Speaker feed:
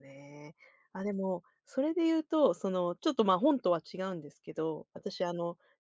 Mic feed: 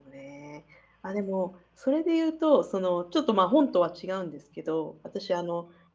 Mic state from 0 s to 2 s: echo only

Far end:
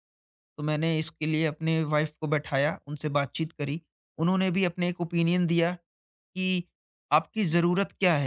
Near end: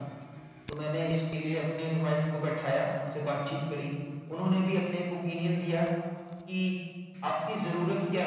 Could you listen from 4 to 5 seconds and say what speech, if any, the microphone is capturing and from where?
echo only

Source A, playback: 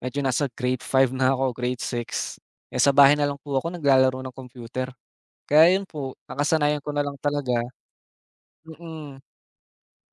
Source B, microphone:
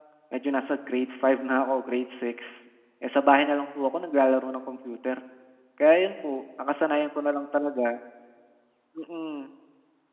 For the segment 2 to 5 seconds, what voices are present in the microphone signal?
echo only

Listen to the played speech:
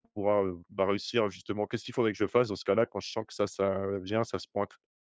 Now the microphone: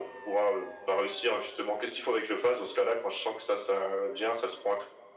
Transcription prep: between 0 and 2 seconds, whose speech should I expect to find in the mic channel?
echo only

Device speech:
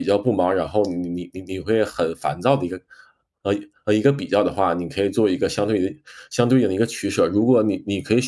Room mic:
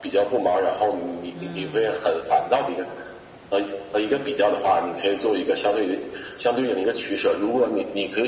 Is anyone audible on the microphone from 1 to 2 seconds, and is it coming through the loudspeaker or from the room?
both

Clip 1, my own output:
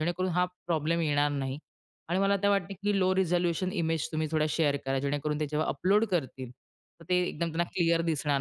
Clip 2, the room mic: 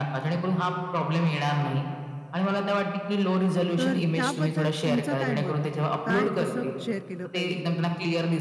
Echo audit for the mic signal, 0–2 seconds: echo only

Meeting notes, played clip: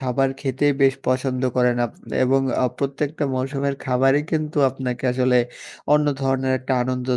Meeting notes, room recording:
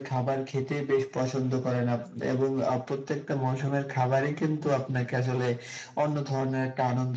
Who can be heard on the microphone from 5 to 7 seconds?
echo only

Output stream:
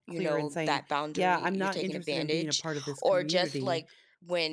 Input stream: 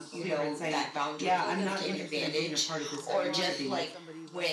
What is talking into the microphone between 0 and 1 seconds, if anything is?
both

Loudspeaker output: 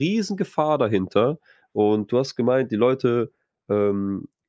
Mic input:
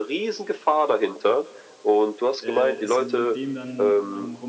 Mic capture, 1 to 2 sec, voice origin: echo only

